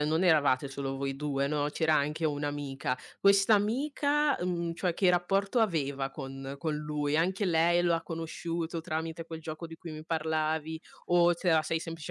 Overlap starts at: none

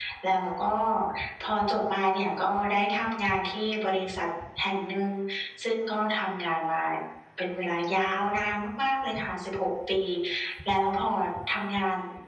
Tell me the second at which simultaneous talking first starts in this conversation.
none

